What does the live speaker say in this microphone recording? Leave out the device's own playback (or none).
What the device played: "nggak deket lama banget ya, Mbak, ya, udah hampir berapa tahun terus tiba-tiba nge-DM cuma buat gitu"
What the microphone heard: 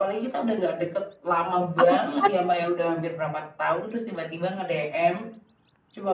Aku tuh kan,